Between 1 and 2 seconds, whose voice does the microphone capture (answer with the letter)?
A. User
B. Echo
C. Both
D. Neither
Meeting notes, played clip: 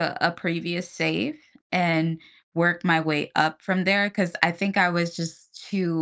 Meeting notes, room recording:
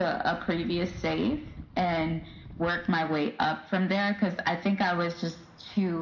B